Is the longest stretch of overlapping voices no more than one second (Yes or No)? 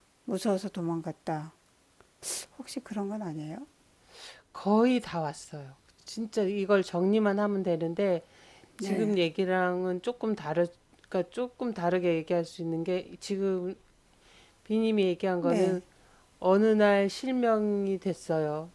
Yes